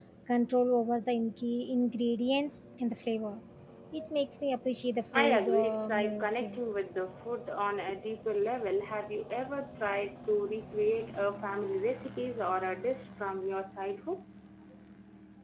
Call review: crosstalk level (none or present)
present